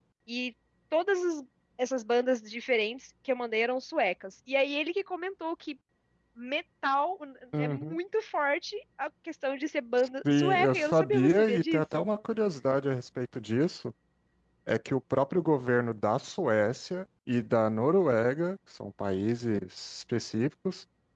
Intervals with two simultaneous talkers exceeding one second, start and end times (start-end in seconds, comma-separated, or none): 10.2-12.0